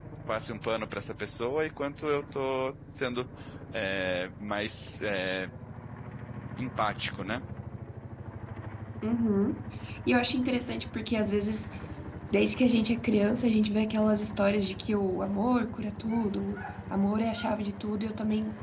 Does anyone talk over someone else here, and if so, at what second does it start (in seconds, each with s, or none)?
none